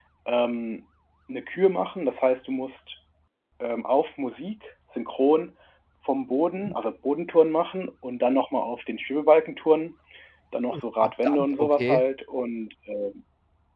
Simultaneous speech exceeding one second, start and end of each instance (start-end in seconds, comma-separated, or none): 10.7-12.0